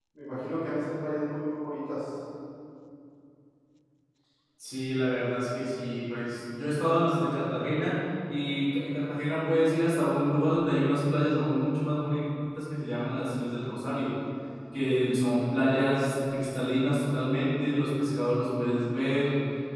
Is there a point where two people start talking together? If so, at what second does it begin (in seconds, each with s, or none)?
none